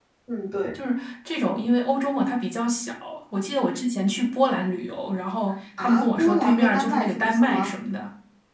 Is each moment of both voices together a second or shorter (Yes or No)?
No